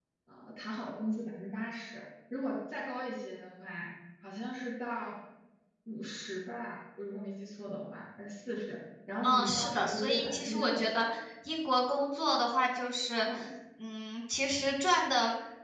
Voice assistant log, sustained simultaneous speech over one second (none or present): present